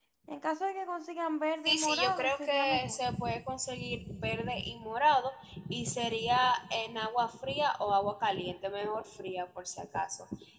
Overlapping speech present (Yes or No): Yes